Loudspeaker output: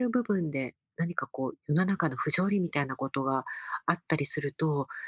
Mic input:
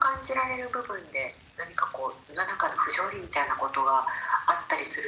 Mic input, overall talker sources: echo only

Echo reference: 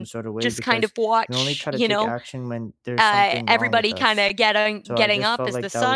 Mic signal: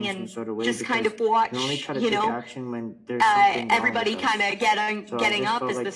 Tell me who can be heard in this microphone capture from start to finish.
echo only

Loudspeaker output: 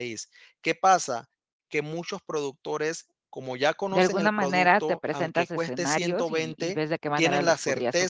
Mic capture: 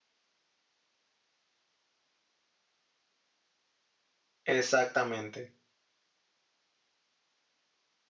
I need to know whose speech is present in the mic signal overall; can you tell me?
user only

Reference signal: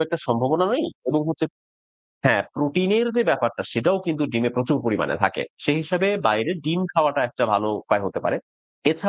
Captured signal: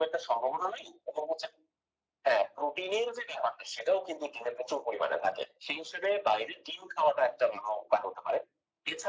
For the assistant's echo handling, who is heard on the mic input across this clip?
echo only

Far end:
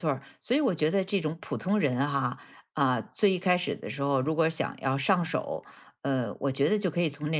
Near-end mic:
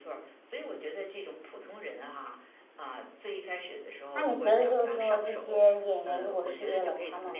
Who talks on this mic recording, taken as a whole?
both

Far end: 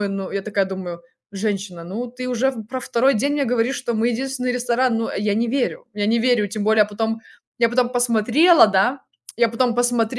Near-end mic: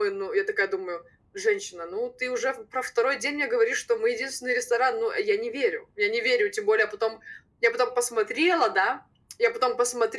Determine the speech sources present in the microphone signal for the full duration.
echo only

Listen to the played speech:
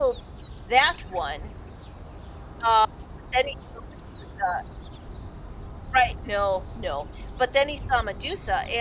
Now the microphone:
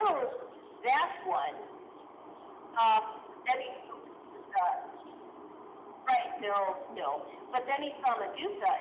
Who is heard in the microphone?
echo only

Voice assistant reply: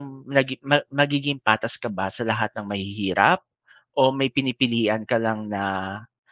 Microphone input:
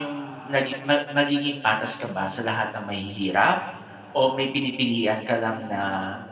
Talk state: echo only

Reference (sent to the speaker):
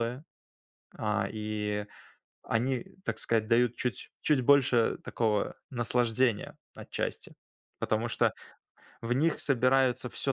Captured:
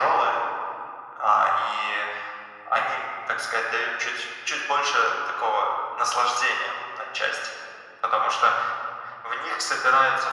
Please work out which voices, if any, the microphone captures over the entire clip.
echo only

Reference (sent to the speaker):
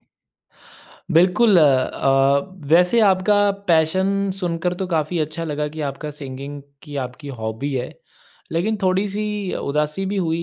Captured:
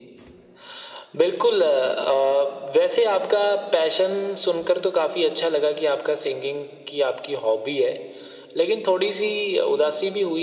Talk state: echo only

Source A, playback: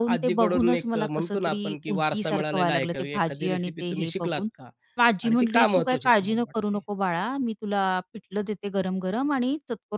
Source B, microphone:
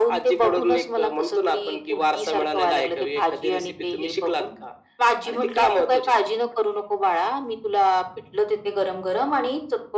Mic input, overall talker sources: echo only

